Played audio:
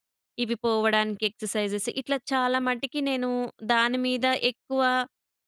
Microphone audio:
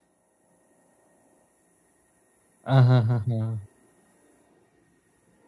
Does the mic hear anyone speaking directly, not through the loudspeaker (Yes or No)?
Yes